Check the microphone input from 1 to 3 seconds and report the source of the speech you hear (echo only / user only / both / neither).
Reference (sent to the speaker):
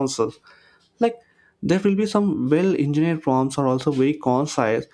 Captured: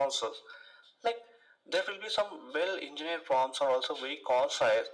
echo only